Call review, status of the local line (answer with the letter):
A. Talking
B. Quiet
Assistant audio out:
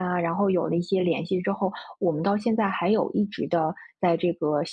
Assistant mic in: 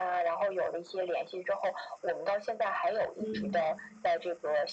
A